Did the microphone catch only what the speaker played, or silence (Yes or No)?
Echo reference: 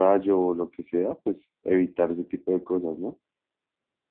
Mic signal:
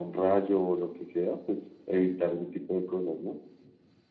Yes